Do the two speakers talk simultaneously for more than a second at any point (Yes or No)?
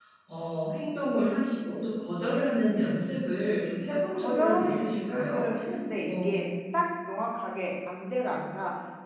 Yes